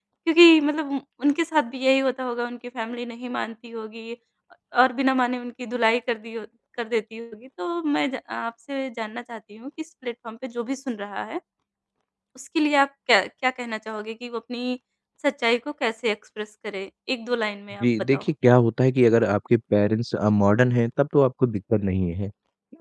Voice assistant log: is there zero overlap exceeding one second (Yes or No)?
Yes